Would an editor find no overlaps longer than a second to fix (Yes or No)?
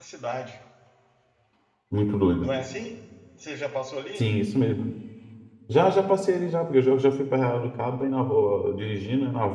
Yes